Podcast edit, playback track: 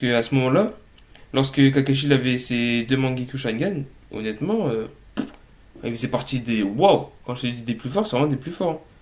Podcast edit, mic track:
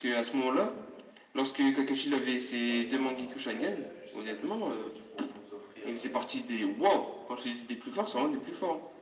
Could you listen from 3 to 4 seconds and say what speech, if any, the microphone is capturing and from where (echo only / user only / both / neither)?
both